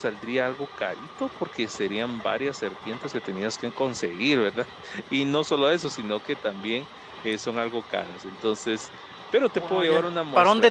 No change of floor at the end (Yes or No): No